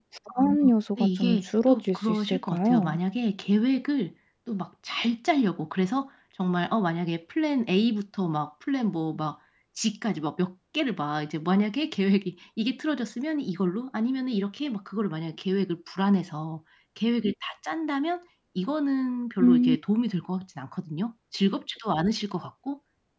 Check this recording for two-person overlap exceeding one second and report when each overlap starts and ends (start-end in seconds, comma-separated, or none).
1.0-3.0